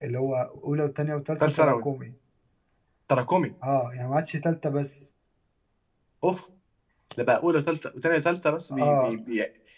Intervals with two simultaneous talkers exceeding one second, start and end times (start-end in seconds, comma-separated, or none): none